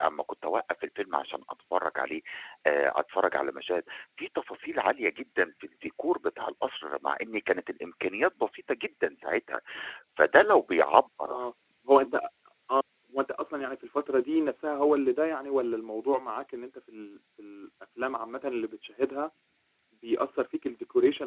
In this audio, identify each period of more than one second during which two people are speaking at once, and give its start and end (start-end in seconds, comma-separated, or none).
none